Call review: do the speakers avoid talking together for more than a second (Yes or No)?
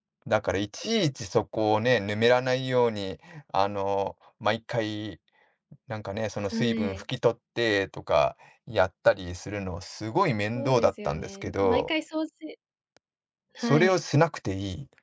No